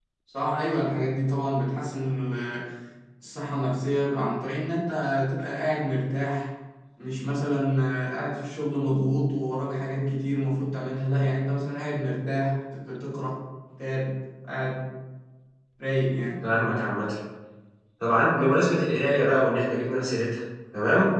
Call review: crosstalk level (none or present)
none